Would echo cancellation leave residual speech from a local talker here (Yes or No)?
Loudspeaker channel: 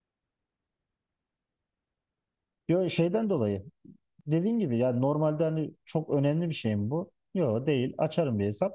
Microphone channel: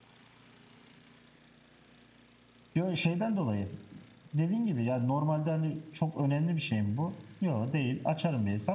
No